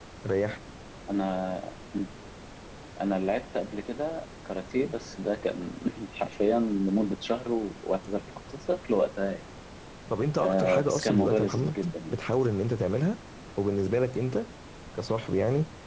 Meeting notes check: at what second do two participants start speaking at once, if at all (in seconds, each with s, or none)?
10.4 s